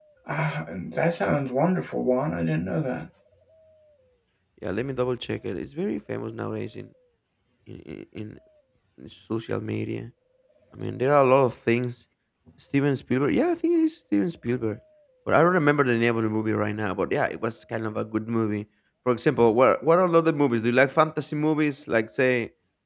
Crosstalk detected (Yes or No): No